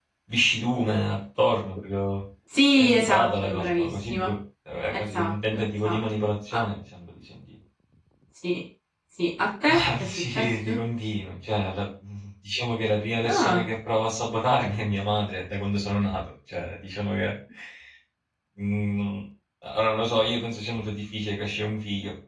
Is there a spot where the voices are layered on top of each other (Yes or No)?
Yes